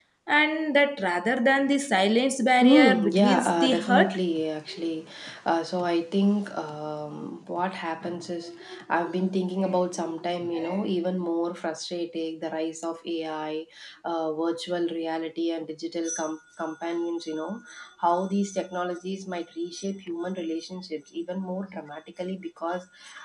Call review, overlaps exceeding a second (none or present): present